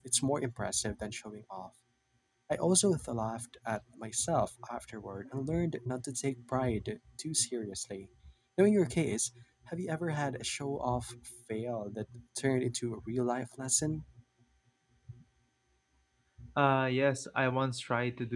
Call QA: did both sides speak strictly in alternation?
Yes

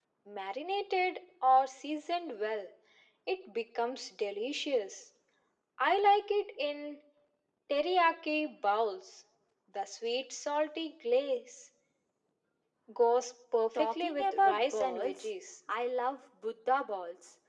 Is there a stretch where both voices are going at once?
Yes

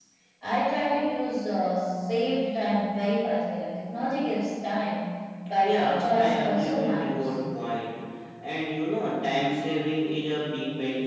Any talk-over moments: Yes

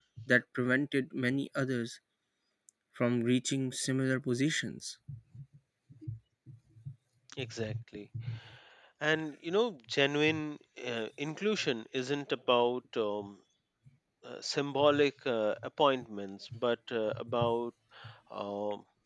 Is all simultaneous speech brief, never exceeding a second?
Yes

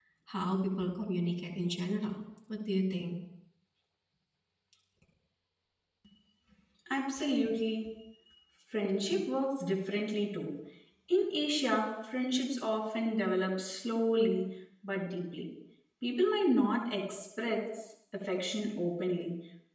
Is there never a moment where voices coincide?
Yes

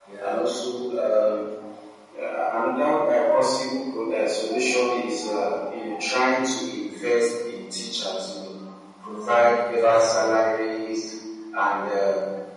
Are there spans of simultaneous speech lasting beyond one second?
Yes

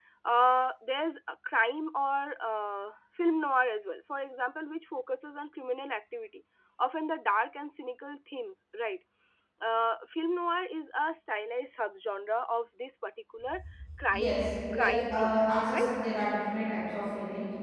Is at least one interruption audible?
Yes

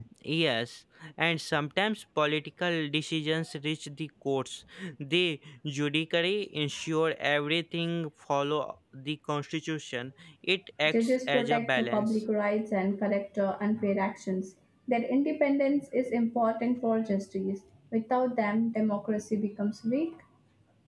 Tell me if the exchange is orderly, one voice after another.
No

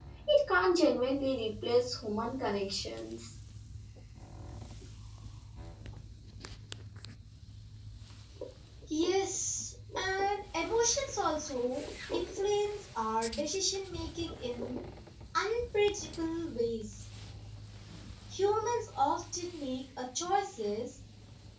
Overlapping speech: No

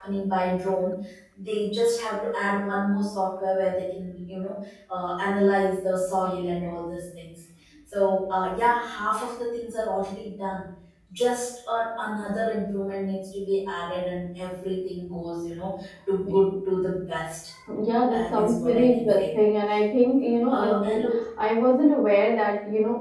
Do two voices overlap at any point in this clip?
Yes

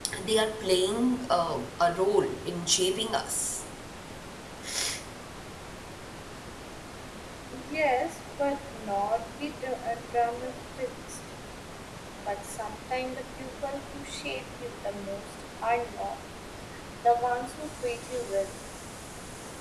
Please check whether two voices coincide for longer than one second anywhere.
No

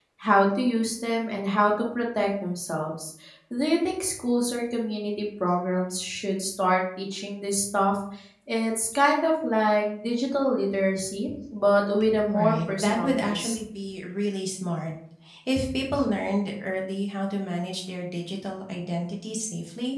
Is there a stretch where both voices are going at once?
Yes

